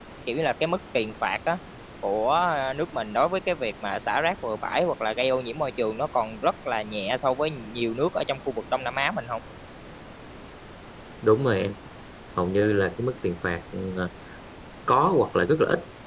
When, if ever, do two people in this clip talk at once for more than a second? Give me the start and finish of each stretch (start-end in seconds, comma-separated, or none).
none